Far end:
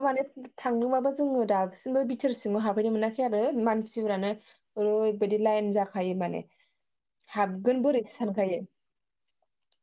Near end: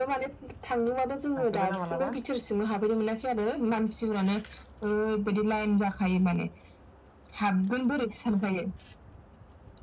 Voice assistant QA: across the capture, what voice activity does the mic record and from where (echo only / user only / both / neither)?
both